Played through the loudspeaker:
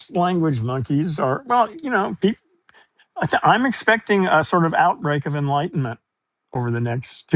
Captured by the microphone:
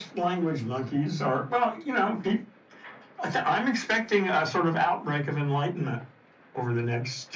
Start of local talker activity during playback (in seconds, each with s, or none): none